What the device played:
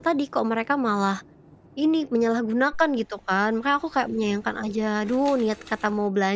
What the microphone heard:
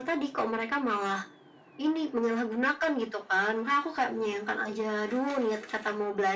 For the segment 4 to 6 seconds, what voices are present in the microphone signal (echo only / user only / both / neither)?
echo only